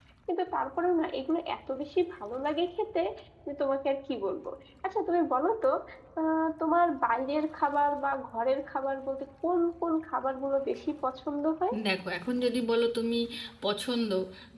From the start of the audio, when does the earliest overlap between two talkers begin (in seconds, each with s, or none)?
none